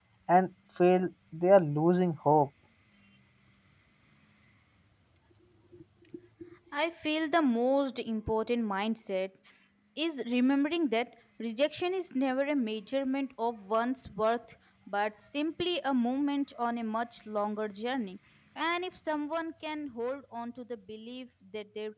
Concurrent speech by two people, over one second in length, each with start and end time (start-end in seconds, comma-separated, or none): none